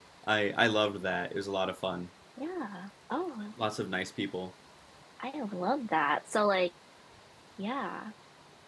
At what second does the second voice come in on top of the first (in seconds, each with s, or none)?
none